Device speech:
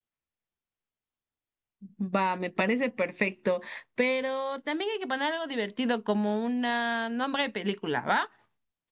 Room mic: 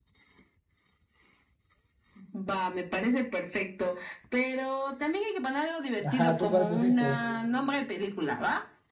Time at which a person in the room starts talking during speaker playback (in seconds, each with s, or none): 6.0 s